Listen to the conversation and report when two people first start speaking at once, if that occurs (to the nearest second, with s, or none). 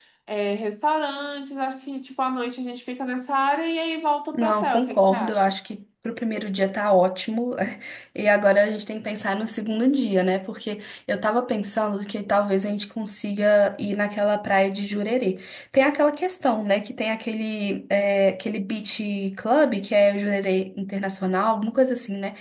4 s